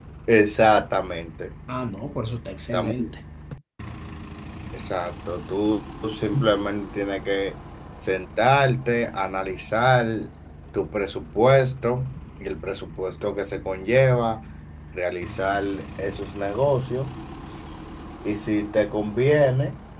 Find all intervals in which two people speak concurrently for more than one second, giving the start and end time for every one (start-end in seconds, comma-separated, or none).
none